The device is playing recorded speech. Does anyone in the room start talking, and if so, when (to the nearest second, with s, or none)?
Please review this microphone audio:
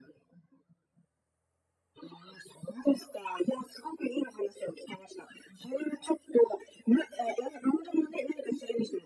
none